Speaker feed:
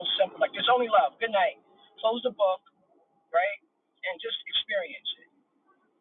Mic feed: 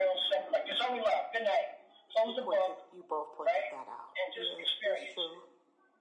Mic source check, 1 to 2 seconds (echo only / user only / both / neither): echo only